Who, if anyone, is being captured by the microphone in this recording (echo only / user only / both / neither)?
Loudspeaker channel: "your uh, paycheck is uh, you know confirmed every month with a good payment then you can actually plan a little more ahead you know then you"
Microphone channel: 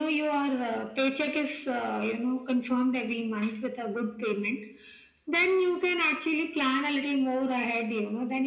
echo only